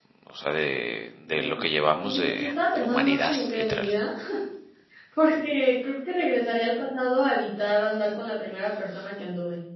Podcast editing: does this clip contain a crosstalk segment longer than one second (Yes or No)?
Yes